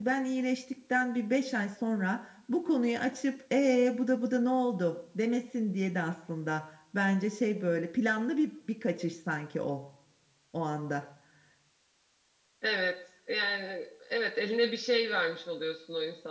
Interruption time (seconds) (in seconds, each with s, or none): none